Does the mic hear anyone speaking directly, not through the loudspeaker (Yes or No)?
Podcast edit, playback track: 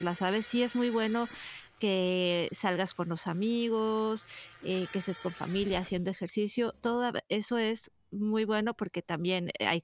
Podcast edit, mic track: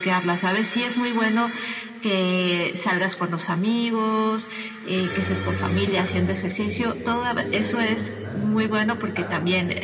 Yes